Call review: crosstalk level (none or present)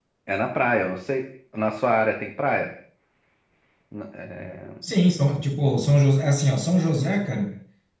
none